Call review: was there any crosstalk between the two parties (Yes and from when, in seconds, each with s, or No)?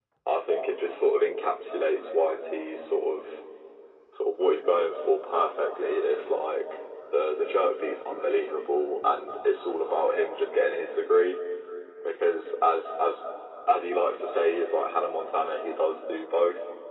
No